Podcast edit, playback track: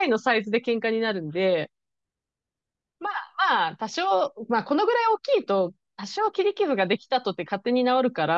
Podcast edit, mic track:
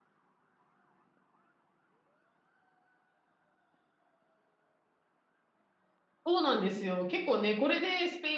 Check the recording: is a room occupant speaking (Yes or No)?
Yes